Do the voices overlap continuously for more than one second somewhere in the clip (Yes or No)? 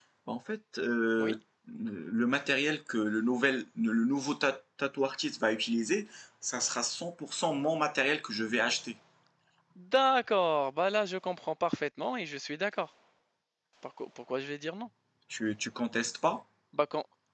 No